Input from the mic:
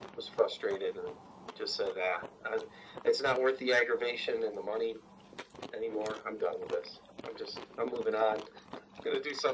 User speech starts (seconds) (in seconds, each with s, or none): none